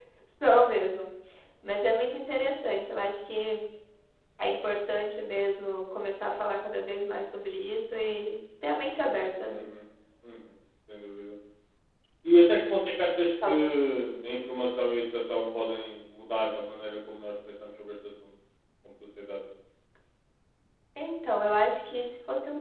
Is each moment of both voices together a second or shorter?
Yes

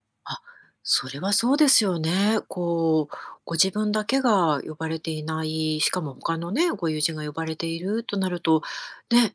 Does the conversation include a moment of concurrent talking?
No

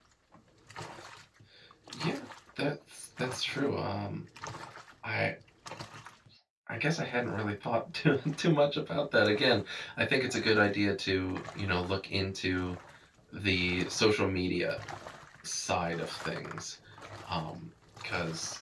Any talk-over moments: No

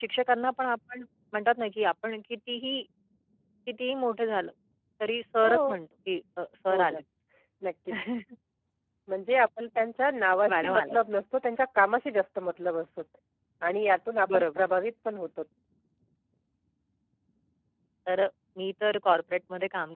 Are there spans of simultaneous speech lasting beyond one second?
No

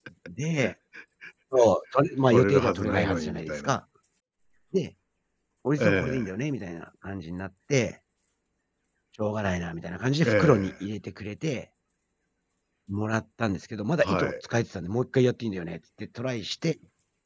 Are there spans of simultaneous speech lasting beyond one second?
Yes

